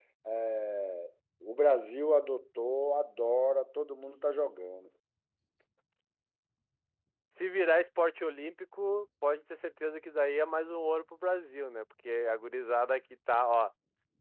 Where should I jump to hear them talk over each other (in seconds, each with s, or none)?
none